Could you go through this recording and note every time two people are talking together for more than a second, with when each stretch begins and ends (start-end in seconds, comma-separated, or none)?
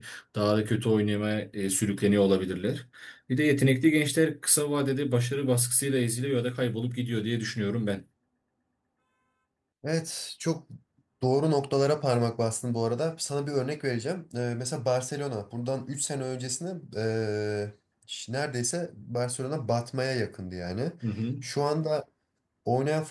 none